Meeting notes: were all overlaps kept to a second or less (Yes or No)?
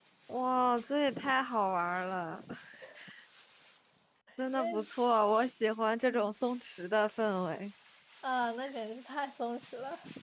Yes